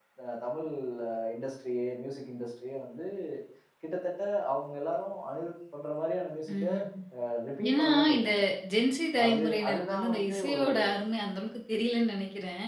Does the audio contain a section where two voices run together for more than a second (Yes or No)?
Yes